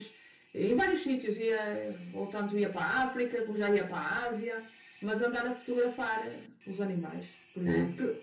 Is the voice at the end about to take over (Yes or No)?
No